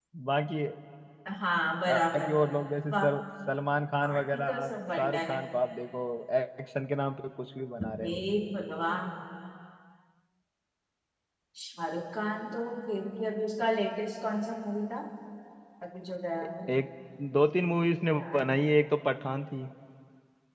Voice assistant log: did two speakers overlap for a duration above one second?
Yes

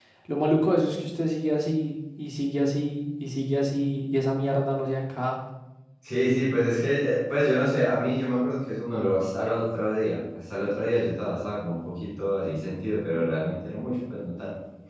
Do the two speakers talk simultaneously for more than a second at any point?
No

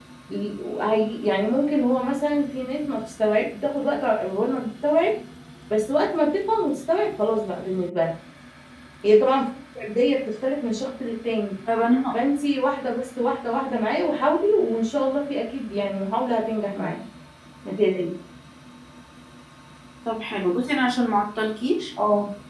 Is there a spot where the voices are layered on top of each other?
No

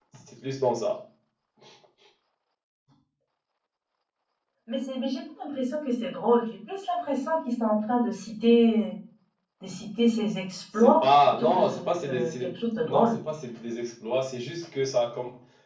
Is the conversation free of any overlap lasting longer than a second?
No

